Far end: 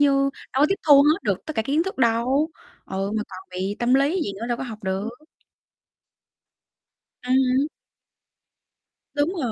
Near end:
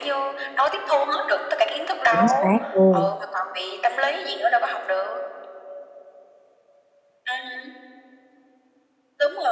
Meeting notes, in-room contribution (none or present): present